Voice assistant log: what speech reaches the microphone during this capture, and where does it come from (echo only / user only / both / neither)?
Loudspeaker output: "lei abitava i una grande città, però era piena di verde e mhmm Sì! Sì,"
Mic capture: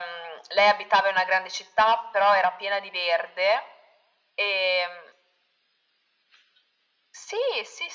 echo only